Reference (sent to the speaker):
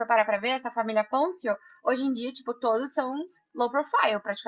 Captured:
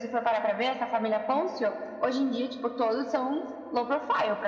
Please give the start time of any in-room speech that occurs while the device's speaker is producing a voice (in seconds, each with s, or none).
none